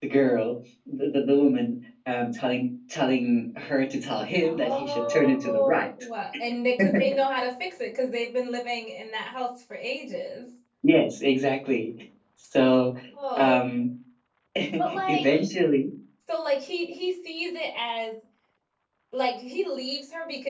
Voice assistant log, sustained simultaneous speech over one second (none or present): present